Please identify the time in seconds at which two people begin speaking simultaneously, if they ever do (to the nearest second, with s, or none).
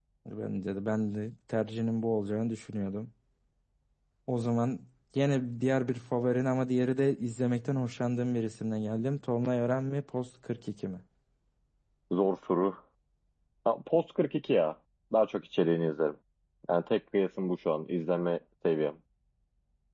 none